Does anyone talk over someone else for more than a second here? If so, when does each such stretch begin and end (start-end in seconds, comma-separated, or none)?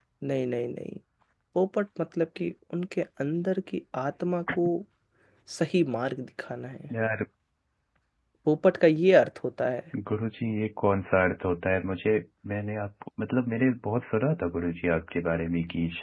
none